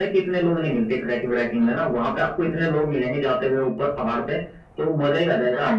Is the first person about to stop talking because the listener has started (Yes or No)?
No